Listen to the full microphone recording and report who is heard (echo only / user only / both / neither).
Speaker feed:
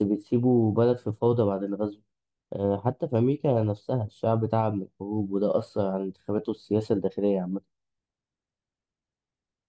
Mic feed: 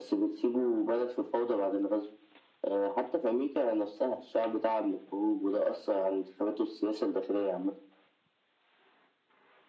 echo only